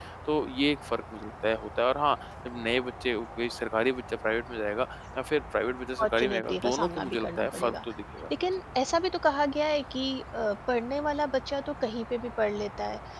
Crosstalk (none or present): present